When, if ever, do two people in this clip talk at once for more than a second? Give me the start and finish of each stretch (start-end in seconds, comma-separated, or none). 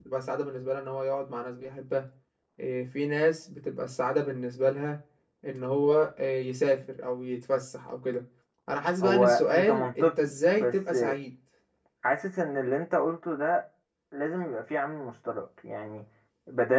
9.0-10.9